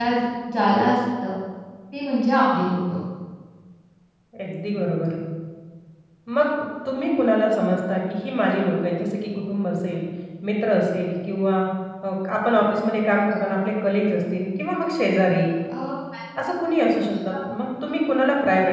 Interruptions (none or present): none